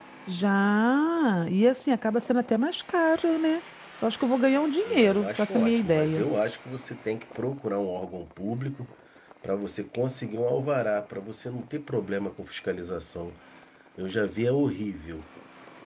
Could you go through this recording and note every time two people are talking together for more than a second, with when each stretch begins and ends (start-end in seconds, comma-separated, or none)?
4.8-6.2